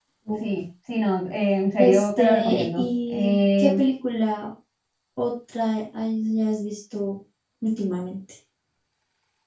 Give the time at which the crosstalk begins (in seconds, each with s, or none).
1.8 s